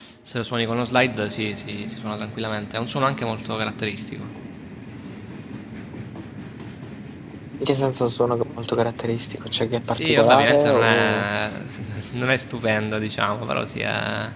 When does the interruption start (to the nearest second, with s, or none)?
10 s